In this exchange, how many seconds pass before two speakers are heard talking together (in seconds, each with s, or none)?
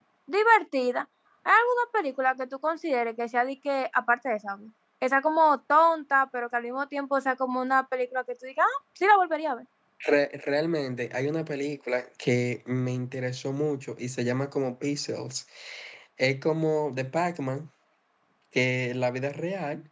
none